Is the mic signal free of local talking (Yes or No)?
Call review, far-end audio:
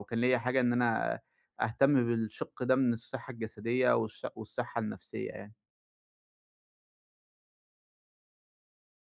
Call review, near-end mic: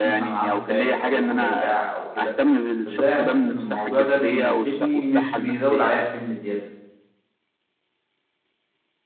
No